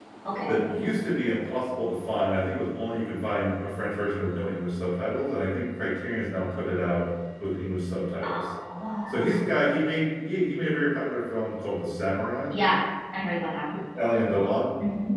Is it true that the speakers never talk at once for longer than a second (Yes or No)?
Yes